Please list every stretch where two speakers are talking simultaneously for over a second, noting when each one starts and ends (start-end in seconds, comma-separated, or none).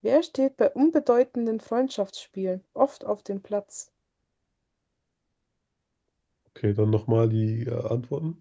none